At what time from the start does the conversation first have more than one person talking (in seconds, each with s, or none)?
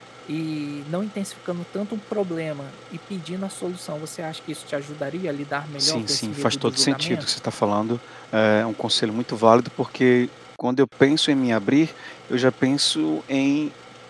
5.8 s